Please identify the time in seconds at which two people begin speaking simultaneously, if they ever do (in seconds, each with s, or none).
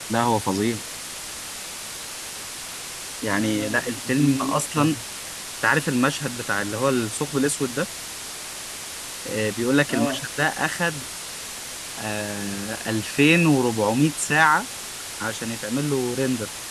3.3 s